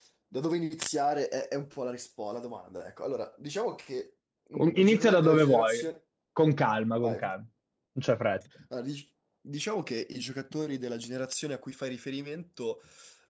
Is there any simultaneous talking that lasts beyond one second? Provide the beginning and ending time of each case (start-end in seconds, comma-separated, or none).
4.5-5.8